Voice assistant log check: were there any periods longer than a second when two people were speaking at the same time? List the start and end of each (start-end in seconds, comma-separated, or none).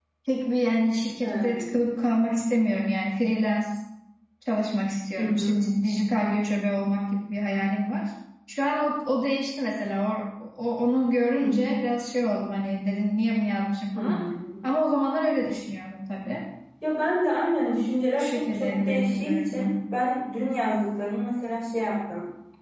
18.1-19.6